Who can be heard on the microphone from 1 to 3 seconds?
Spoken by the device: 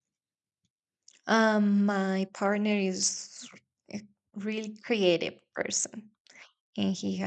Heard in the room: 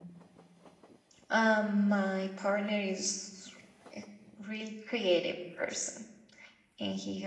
echo only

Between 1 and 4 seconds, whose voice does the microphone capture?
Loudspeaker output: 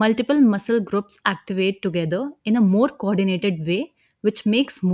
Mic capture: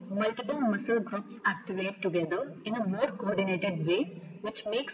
echo only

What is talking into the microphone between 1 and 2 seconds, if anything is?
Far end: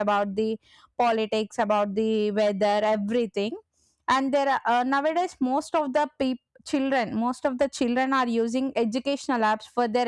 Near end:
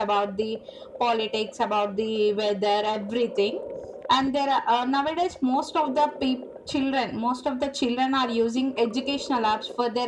echo only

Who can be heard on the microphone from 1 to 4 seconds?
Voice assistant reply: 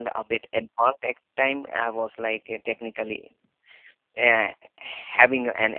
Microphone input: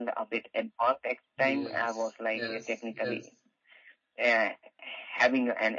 both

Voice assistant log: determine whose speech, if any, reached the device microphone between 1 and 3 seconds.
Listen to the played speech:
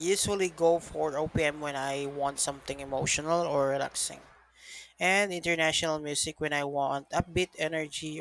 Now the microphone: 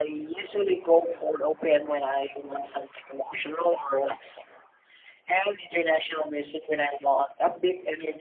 echo only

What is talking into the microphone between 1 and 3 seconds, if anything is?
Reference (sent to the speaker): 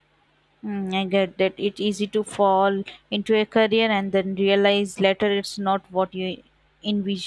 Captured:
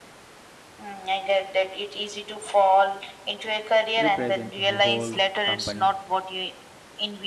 echo only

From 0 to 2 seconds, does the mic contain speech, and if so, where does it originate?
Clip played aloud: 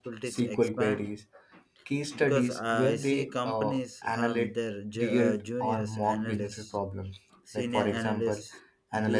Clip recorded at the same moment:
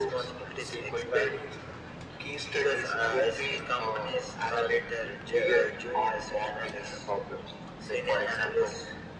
echo only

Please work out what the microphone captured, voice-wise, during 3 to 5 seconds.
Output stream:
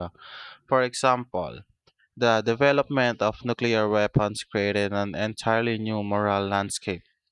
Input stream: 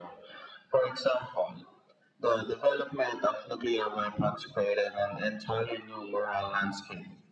echo only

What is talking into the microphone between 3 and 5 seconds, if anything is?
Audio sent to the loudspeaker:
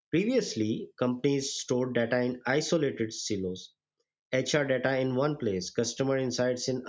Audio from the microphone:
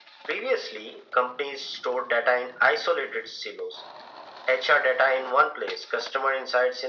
echo only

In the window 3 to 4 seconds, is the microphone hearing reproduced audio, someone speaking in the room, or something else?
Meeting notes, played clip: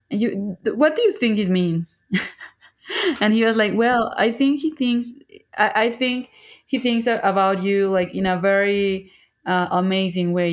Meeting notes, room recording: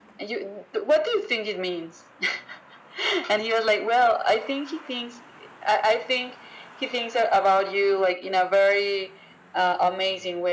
echo only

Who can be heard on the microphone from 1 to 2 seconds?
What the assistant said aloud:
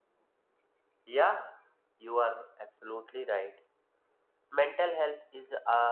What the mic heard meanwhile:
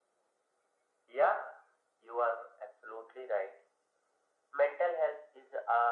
echo only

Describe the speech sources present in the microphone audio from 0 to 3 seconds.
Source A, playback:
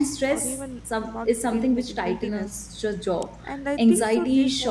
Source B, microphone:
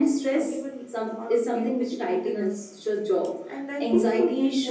echo only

